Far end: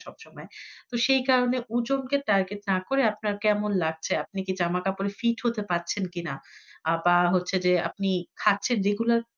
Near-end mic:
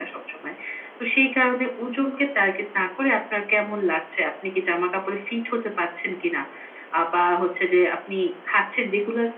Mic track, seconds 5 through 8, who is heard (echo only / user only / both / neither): echo only